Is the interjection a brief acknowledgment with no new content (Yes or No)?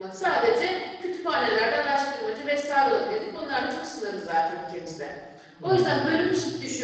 Yes